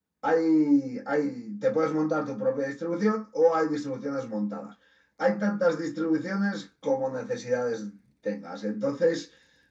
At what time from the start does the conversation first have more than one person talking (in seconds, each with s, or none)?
none